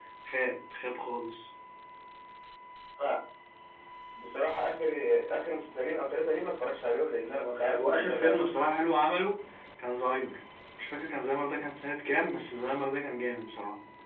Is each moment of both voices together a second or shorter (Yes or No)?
No